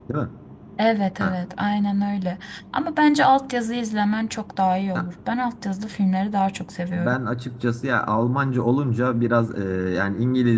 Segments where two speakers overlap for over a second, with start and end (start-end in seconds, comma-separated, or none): none